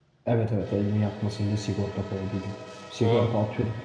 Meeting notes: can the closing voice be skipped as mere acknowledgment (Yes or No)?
Yes